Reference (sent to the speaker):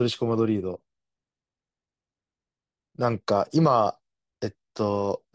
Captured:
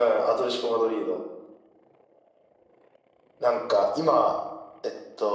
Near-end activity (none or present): none